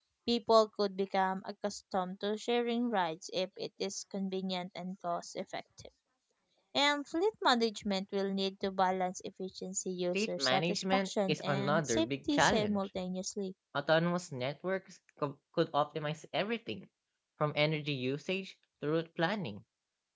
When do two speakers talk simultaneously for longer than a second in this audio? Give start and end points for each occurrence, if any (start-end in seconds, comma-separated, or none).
10.1-12.9